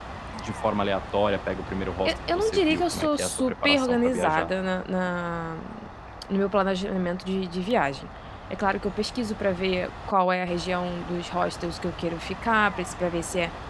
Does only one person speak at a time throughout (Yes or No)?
No